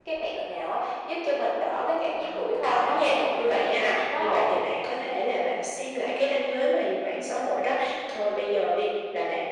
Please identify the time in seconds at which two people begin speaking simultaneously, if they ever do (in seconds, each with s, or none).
2.2 s